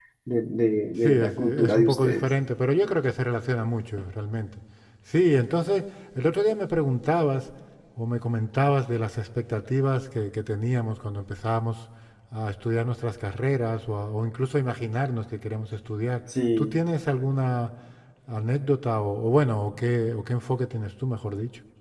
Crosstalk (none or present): present